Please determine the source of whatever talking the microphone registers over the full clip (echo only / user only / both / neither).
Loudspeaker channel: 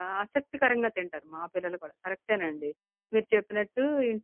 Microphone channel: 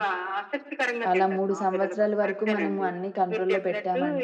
both